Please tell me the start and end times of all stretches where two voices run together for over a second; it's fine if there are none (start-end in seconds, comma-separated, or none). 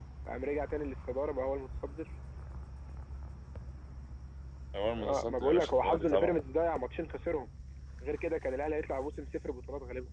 5.0-6.3